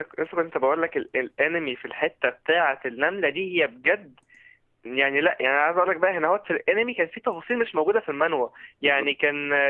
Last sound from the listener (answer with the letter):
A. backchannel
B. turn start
A